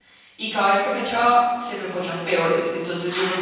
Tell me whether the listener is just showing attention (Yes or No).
Yes